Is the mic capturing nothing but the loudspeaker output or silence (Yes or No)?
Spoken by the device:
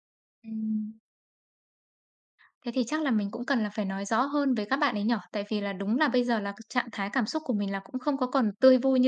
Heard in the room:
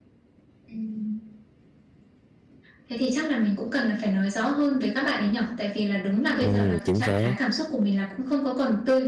No